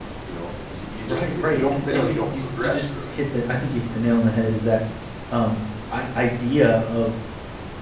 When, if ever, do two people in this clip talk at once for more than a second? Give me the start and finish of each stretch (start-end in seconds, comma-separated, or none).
1.1-3.2